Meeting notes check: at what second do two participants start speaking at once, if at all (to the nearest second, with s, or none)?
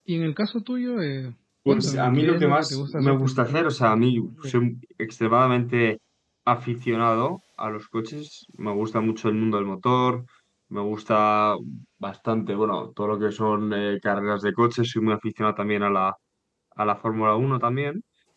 2 s